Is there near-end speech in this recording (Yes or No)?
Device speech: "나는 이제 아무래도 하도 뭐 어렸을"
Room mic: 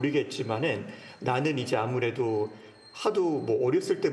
No